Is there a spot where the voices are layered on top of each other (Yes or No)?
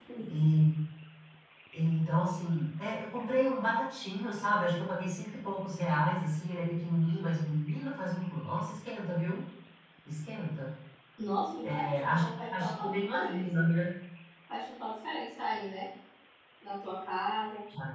Yes